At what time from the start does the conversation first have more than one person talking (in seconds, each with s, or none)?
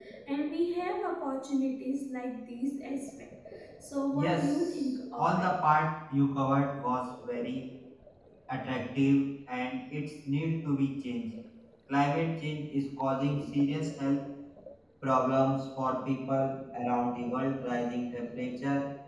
4.1 s